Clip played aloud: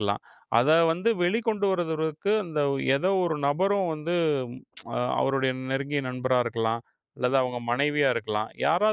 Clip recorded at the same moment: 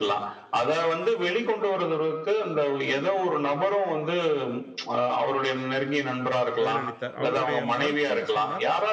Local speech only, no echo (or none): பதிலளித்தார். அவருடைய மறுப்பையும் சொன்னார்.